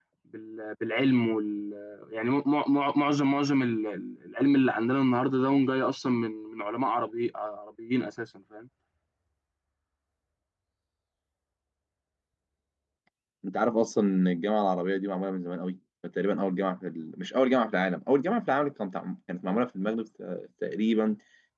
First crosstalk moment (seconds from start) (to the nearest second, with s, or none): none